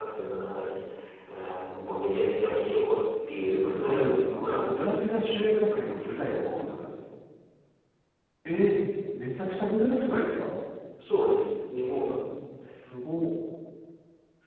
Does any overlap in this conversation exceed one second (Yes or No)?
Yes